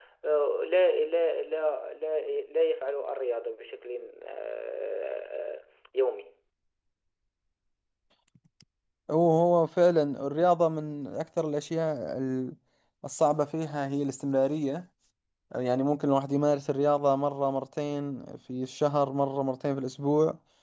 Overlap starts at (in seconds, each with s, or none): none